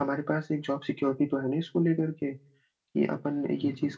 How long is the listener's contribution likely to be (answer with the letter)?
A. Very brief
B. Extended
B